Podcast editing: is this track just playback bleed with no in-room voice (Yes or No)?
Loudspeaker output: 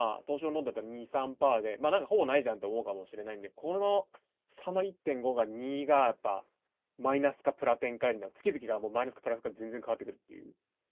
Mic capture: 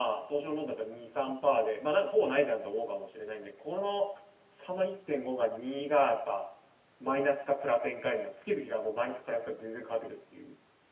Yes